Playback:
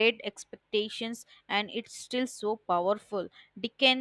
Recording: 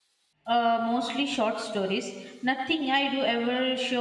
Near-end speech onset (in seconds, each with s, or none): 0.4 s